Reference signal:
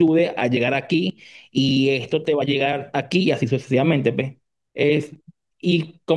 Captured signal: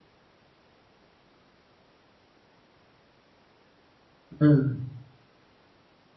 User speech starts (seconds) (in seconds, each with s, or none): 4.4 s